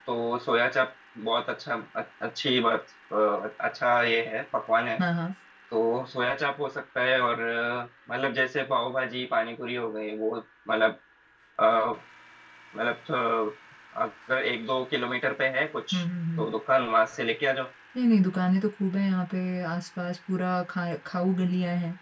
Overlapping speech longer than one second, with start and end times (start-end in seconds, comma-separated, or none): none